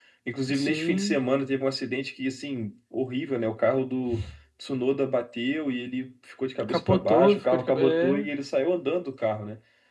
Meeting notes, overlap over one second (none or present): present